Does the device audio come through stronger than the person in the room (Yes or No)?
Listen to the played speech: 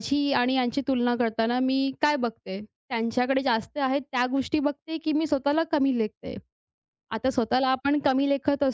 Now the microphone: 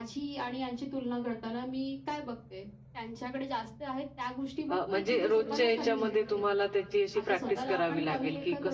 No